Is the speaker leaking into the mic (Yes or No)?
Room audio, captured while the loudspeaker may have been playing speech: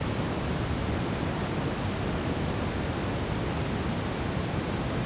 No